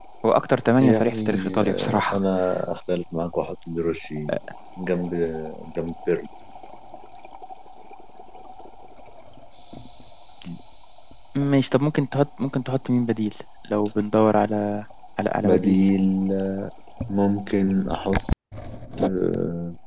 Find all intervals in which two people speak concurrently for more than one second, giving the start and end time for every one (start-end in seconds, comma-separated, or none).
0.8-2.2